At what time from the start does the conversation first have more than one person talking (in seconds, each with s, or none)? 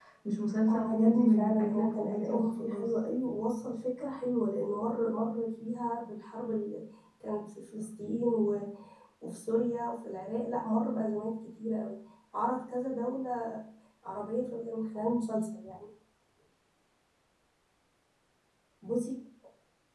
0.7 s